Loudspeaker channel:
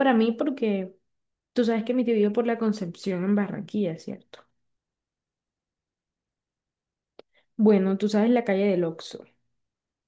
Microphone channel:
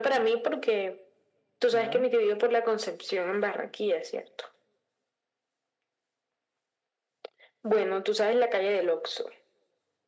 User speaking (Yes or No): Yes